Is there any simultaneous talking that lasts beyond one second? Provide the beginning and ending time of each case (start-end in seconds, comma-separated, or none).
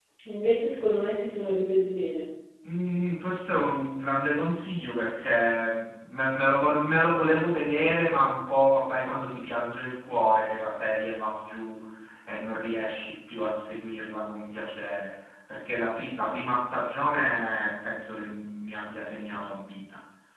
none